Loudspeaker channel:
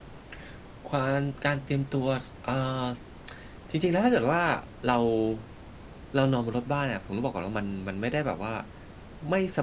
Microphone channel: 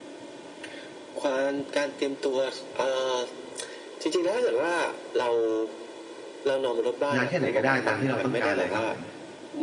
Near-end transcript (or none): นานแค่ไหนก็ได้ ตามที่เราต้องการเลยครับผม